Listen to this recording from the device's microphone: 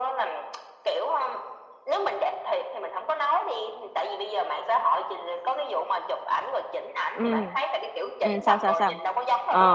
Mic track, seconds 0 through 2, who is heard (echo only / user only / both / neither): echo only